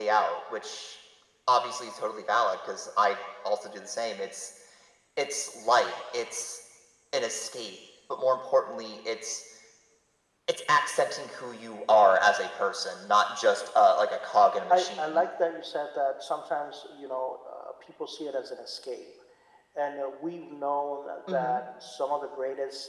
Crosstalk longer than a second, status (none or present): none